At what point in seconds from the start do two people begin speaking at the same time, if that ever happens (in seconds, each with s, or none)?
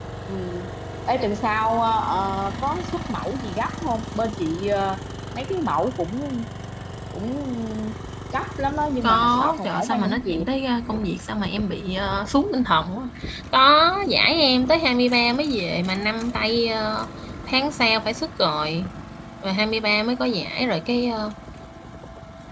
9.0 s